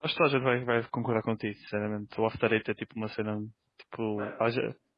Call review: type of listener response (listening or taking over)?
listening